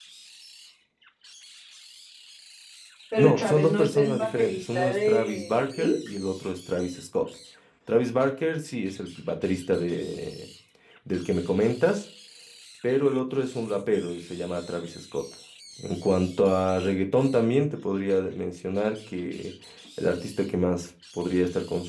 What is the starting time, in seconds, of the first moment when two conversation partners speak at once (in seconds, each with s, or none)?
3.2 s